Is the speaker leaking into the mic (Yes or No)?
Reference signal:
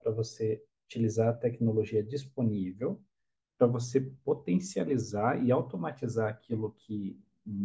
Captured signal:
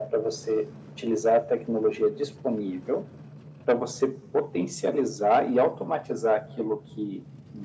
Yes